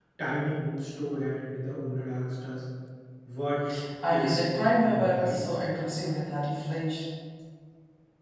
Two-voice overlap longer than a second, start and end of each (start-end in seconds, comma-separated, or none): 4.1-5.4